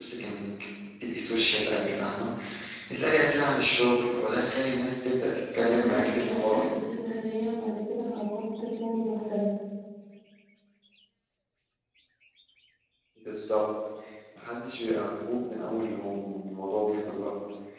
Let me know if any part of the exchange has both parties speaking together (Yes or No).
Yes